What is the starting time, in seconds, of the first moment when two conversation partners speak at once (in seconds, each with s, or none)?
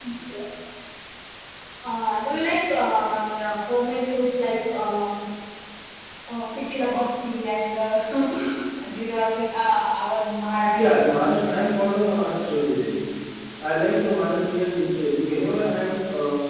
10.6 s